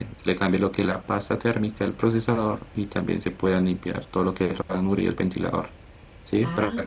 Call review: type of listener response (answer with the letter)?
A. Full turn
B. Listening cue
B